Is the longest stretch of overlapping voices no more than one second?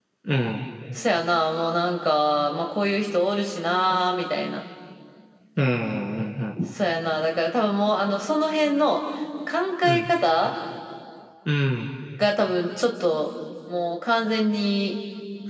Yes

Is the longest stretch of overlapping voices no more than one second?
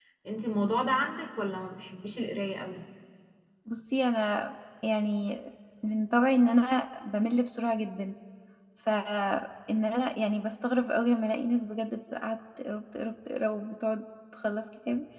Yes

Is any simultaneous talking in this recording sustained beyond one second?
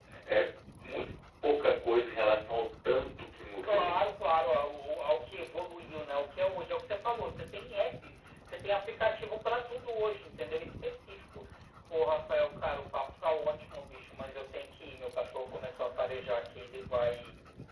No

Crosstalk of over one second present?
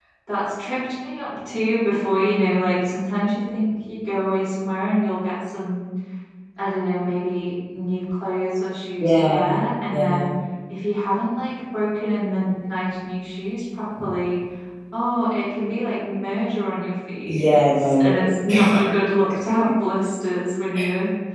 Yes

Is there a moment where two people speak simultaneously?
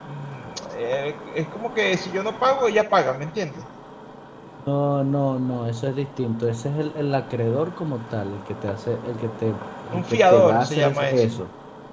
Yes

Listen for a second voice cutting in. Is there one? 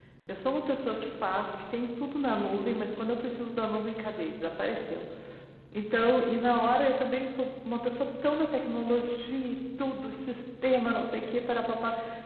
No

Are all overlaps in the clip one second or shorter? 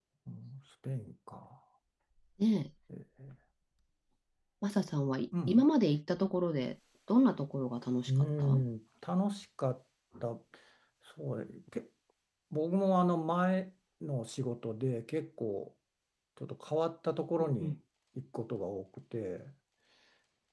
Yes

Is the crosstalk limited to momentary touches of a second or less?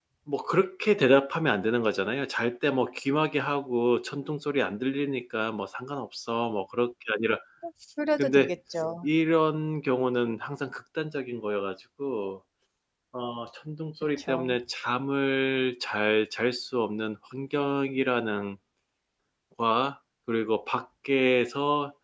Yes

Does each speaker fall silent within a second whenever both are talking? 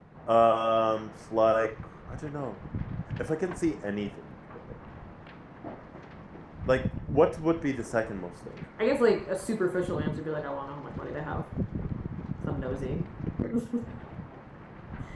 Yes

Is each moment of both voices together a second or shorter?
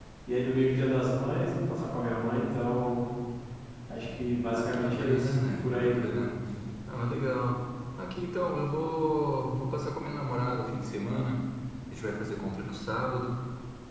No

